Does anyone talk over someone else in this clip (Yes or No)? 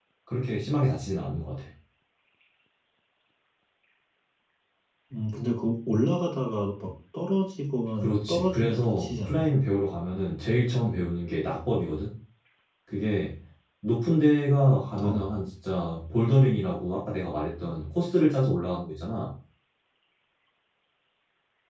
Yes